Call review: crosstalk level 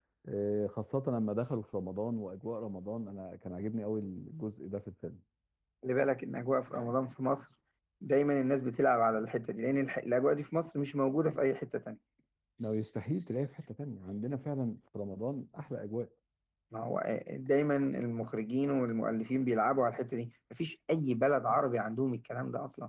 none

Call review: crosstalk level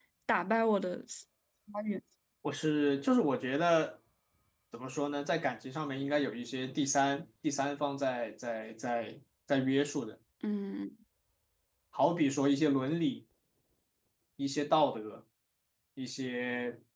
none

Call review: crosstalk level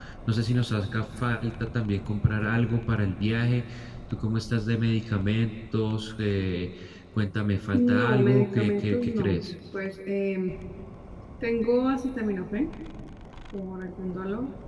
present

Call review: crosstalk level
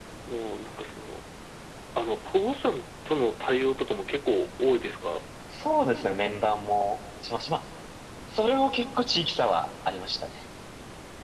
none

